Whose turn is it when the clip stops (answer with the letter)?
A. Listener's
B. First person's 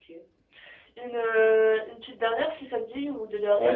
A